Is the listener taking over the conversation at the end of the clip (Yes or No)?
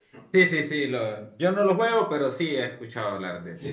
Yes